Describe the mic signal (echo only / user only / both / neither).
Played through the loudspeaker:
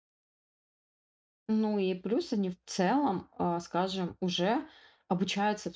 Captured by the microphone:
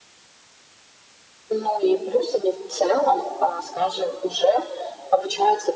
echo only